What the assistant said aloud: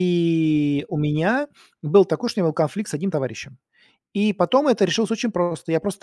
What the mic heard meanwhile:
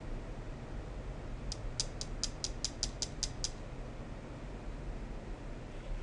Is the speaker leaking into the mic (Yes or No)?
No